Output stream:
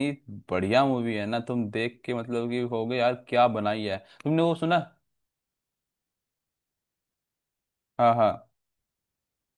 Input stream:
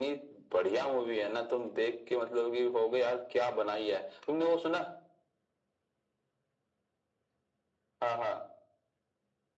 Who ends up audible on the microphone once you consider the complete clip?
echo only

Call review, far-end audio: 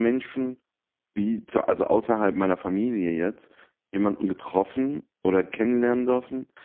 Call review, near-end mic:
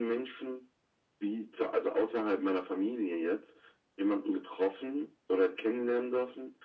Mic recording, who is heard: echo only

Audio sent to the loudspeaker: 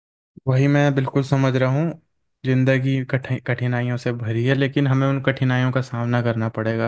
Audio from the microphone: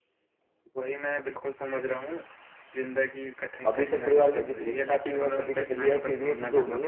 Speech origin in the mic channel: both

